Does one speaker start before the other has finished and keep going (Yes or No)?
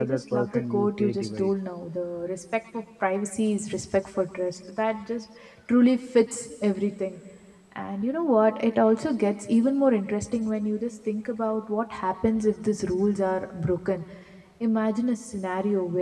Yes